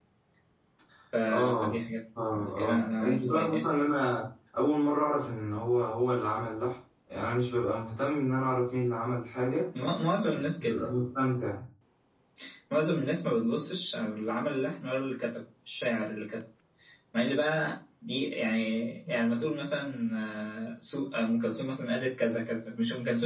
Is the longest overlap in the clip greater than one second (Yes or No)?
Yes